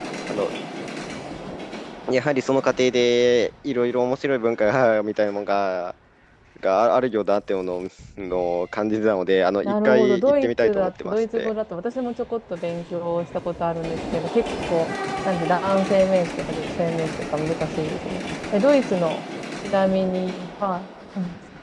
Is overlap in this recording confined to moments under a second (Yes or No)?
No